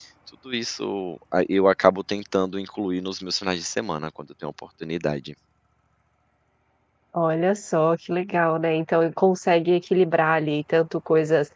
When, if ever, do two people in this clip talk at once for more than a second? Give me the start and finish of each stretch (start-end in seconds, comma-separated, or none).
none